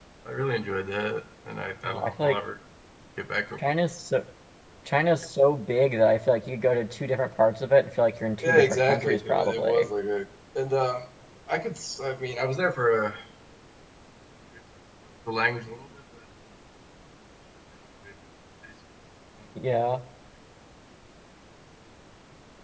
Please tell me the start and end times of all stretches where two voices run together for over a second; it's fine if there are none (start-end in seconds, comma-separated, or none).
8.5-9.9